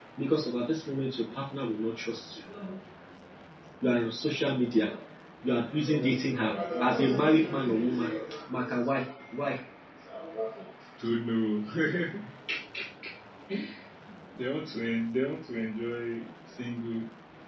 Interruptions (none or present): none